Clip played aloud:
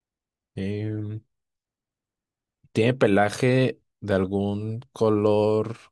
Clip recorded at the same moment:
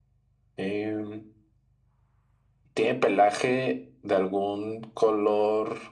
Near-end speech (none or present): none